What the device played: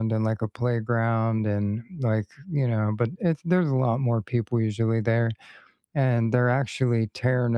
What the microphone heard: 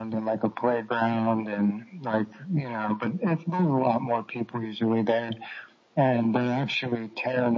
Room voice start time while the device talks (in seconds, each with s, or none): none